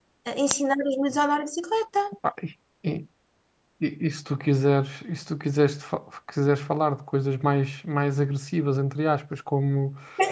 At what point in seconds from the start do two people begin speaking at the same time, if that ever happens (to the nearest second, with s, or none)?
none